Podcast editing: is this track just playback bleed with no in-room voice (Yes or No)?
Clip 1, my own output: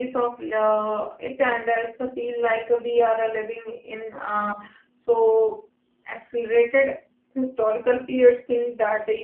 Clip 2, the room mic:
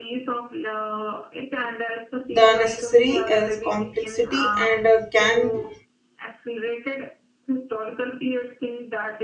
No